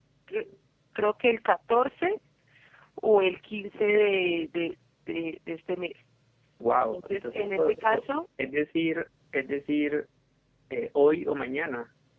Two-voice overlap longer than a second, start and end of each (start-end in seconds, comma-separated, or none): 6.7-8.1